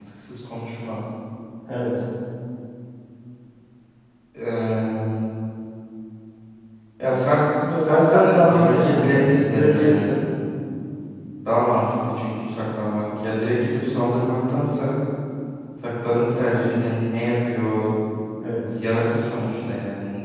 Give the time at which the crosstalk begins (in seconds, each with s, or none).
7.6 s